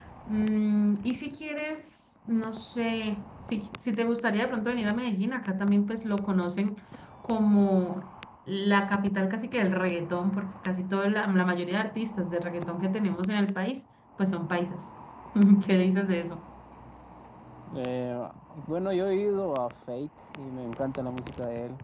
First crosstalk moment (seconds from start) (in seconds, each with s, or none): none